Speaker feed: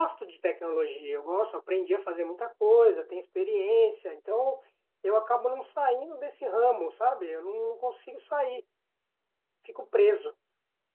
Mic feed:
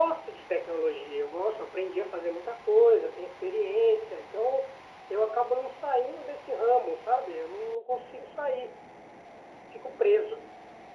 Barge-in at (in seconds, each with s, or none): none